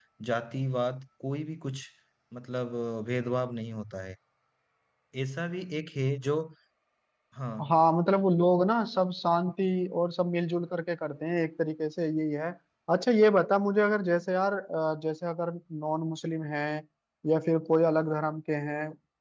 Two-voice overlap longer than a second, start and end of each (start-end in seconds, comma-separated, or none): none